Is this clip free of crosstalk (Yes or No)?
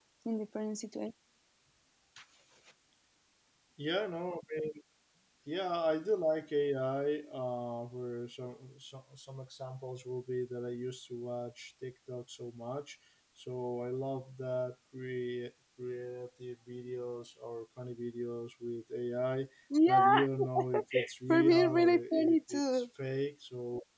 No